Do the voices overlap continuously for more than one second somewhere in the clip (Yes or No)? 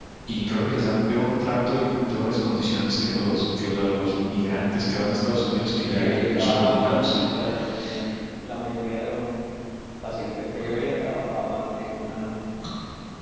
Yes